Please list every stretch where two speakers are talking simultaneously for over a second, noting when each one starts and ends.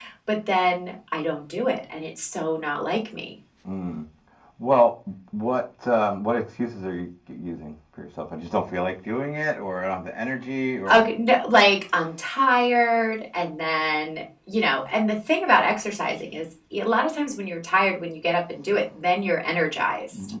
none

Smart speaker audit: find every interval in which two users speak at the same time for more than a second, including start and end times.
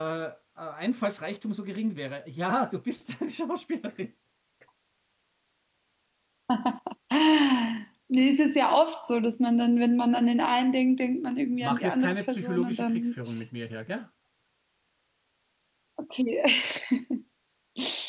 11.6-13.1

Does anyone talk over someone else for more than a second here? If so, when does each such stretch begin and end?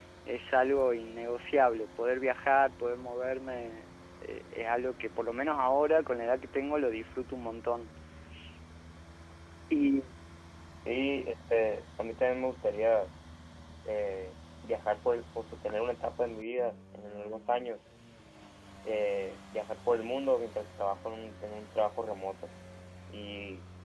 none

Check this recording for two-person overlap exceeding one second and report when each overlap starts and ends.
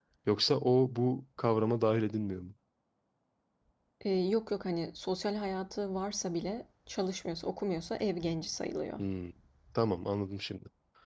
none

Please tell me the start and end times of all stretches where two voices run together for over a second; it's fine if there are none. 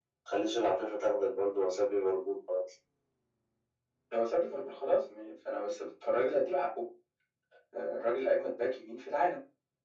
none

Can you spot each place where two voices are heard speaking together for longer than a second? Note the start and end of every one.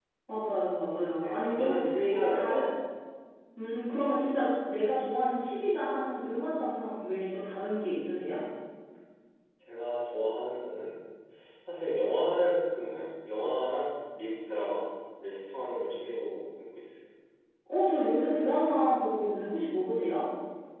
1.2-2.6

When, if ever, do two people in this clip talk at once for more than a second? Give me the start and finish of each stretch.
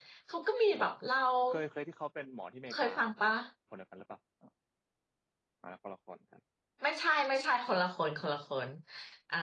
none

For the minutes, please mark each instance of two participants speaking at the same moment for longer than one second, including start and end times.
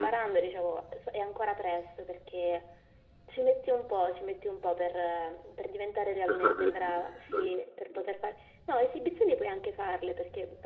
6.3-7.5

